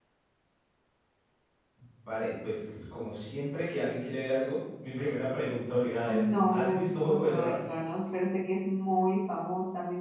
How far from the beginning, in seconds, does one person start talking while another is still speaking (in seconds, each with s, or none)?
6.0 s